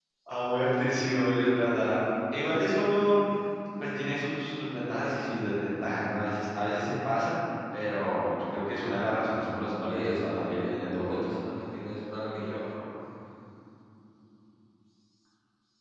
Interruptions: present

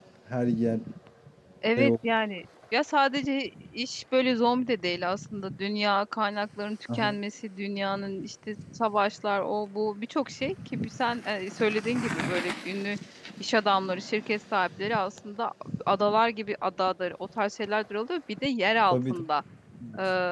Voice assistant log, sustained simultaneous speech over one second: none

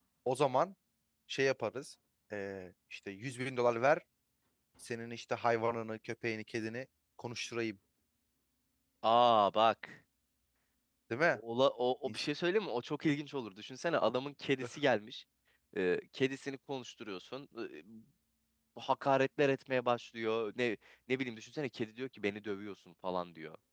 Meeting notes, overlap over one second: none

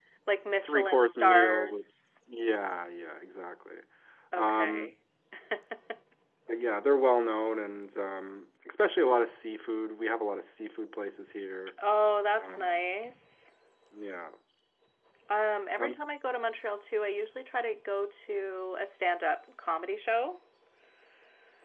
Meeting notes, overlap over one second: present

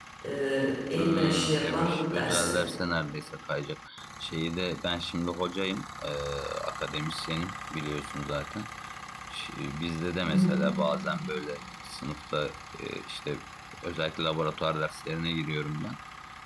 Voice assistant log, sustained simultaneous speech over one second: present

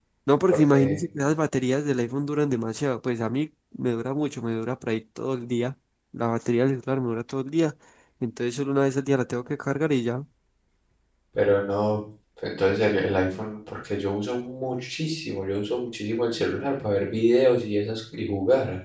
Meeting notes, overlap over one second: none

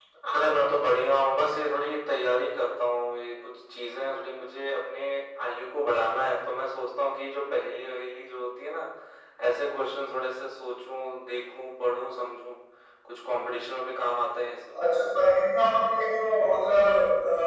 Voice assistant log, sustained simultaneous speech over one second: none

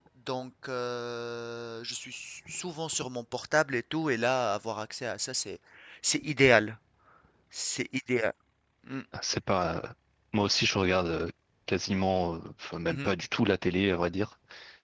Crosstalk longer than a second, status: none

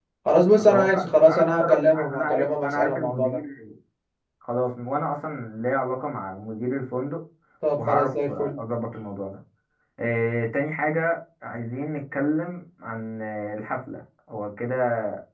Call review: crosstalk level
present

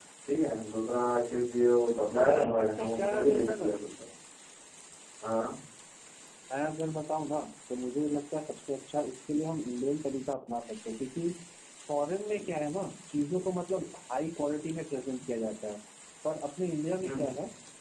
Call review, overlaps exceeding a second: present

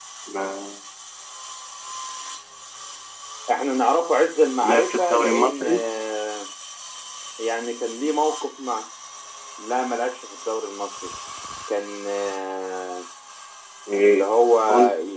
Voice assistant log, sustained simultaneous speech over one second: present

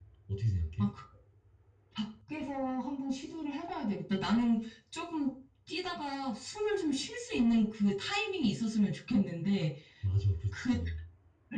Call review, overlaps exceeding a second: none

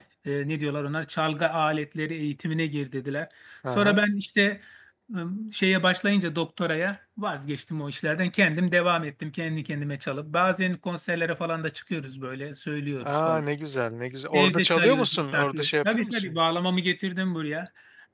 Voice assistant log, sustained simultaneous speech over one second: present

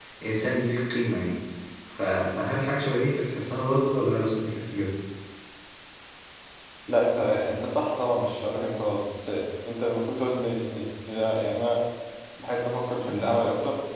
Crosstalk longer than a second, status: none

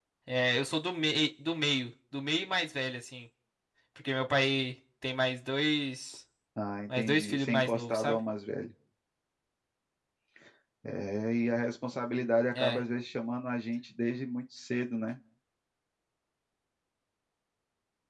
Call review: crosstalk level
present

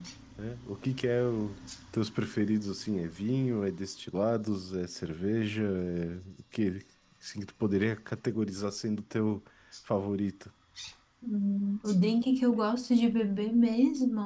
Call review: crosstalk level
none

